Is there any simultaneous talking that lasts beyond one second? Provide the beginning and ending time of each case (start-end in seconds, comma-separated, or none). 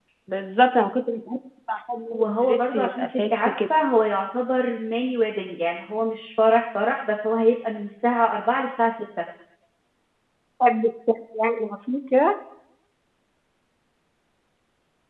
2.1-3.5